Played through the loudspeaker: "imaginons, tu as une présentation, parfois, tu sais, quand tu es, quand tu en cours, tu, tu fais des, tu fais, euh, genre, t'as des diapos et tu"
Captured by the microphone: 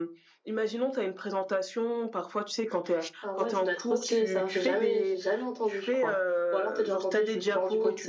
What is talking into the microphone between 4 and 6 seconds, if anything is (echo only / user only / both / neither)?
both